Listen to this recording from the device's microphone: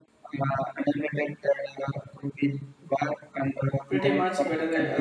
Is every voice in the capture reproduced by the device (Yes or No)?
No